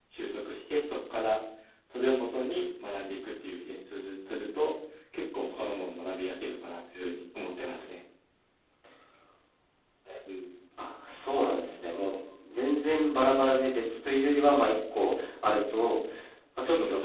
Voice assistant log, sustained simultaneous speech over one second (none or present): none